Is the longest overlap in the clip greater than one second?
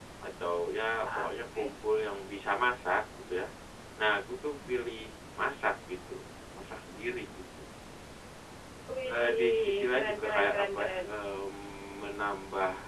Yes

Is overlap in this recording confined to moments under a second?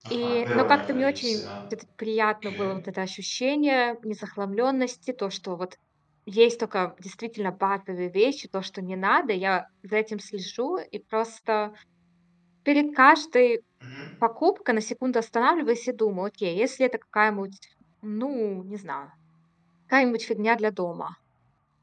No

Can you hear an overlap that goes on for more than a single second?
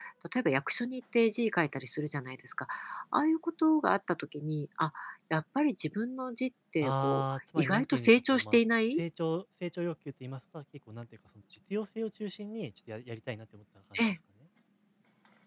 Yes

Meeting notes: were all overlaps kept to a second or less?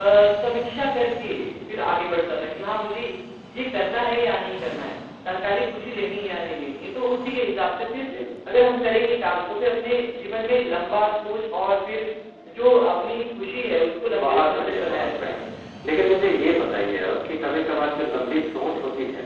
No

